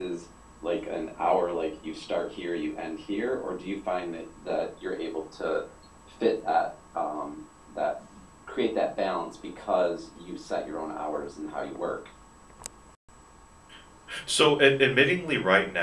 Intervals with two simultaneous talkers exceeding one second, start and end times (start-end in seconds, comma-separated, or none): none